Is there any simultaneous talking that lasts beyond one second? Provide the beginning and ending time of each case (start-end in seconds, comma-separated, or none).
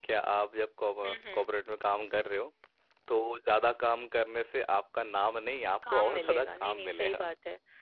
5.9-7.2